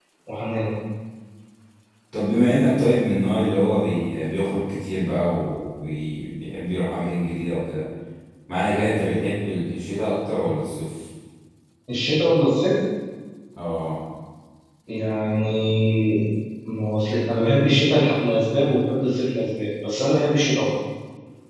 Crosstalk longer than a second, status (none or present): none